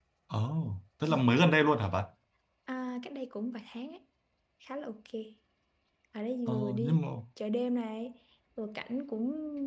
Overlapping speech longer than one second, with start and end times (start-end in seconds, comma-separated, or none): none